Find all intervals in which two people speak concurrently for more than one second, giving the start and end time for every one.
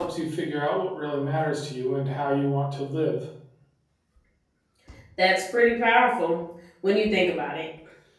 none

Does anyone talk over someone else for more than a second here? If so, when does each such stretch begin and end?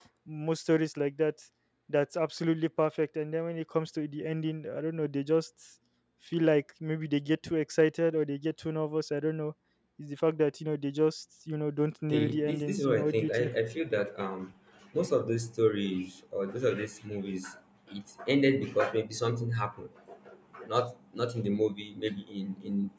12.1-13.5

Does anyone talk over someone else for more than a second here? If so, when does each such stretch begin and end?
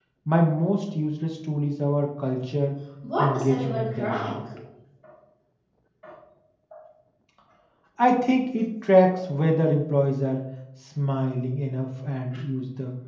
3.2-4.4

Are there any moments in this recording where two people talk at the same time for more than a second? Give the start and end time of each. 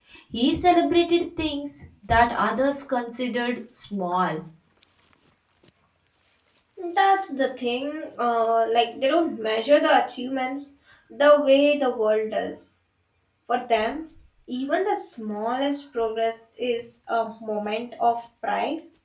none

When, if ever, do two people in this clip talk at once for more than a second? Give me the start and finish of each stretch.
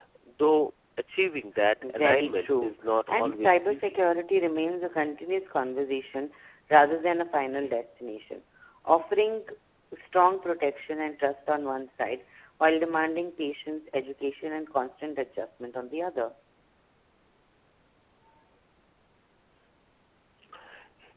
1.8-3.9

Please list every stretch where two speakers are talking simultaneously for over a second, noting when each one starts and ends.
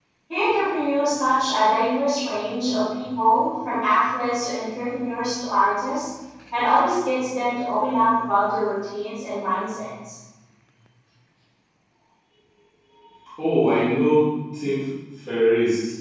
none

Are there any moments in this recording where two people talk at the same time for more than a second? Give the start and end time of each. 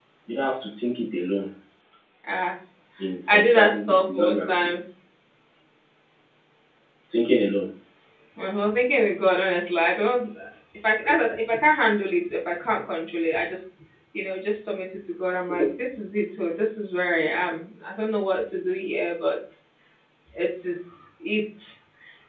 3.3-4.7

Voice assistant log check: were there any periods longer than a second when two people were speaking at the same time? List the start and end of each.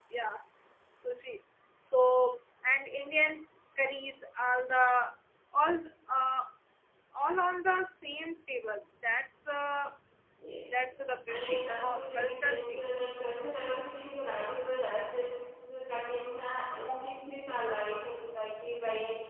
11.3-12.8

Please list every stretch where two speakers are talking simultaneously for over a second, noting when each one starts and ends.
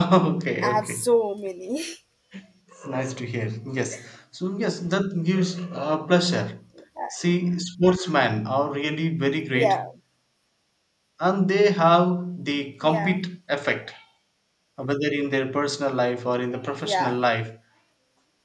none

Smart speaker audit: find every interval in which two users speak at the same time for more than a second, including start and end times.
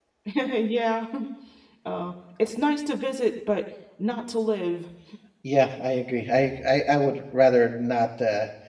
none

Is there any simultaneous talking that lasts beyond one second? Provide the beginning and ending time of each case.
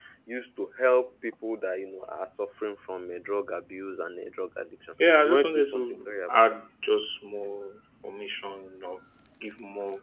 5.2-6.6

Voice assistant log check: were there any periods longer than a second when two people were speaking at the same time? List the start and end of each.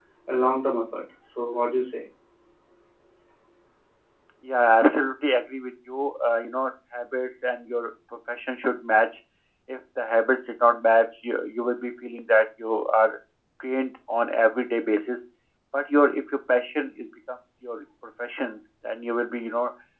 none

